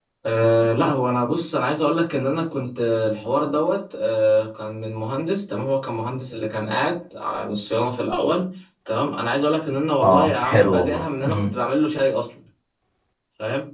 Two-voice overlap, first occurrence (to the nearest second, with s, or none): 10 s